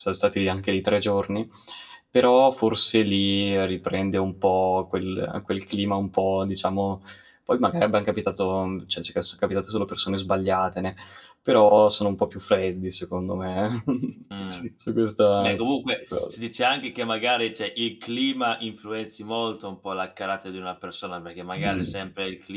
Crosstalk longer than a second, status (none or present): none